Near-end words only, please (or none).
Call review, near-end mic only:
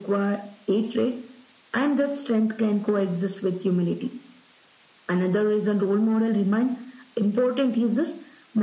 none